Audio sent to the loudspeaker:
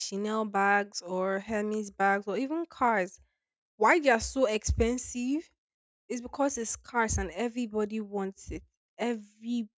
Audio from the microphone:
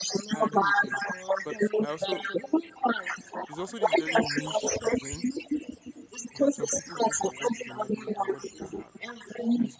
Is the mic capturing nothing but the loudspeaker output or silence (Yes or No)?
No